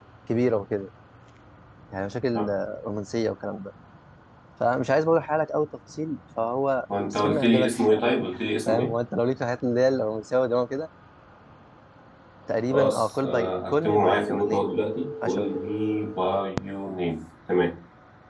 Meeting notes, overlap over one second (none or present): present